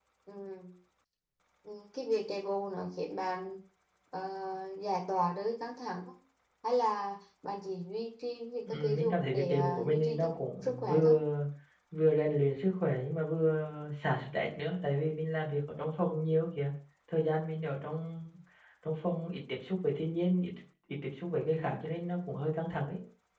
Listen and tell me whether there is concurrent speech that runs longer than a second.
Yes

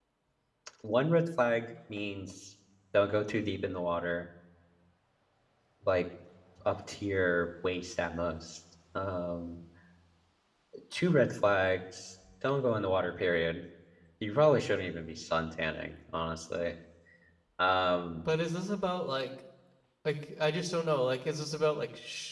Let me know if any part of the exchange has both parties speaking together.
No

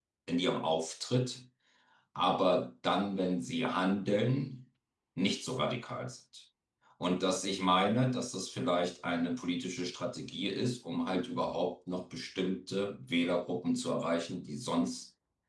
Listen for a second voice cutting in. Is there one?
No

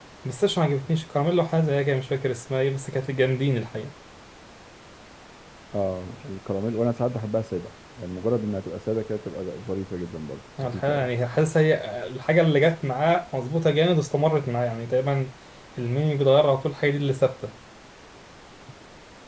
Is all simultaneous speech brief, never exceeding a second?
Yes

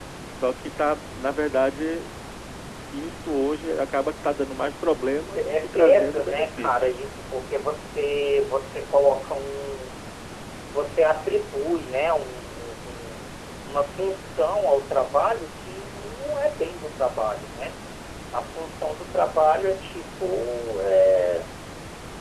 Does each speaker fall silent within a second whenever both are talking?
No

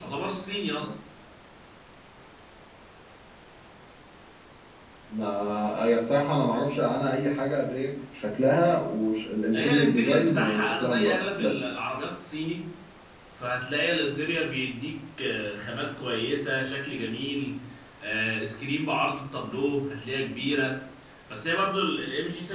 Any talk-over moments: Yes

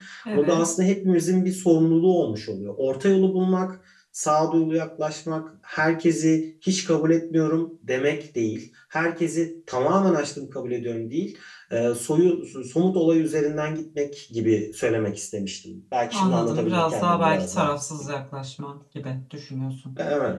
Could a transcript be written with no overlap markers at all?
No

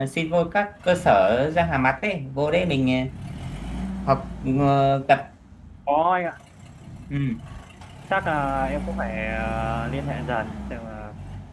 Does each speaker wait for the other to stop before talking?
Yes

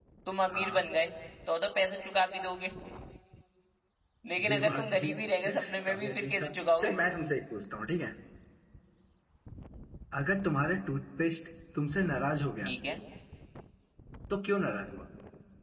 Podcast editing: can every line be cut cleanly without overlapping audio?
No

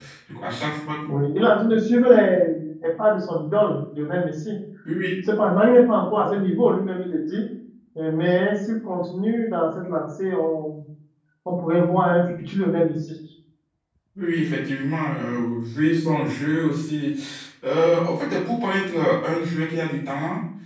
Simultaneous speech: No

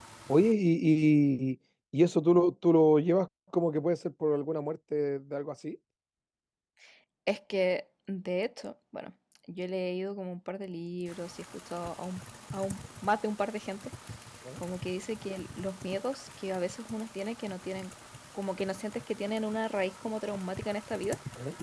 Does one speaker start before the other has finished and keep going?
No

